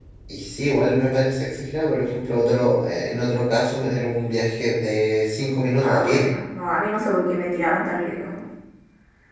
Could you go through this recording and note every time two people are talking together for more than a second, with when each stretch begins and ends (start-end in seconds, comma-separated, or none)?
none